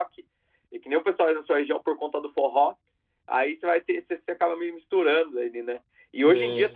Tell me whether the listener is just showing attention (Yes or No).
Yes